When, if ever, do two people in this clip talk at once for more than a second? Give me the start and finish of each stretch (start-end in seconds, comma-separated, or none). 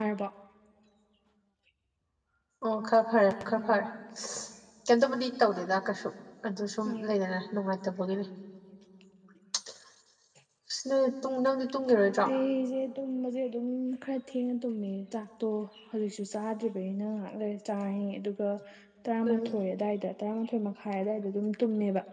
none